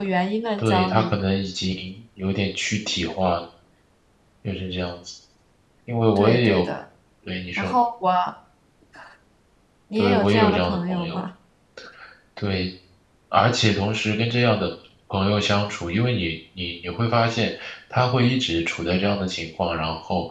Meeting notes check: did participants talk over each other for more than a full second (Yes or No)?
Yes